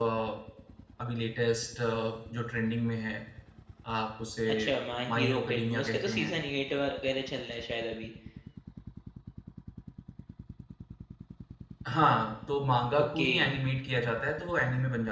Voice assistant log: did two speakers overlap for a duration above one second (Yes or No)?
Yes